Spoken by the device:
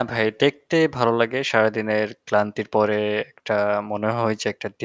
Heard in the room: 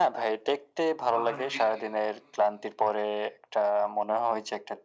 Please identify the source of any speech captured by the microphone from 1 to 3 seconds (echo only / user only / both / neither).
both